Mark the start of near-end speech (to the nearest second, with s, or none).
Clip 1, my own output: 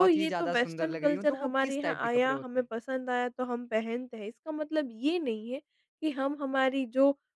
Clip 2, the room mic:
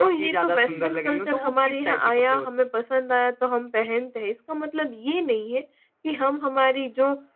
0 s